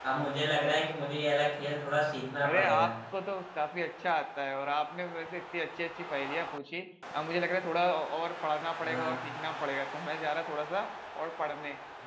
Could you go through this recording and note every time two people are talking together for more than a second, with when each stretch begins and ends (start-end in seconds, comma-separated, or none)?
none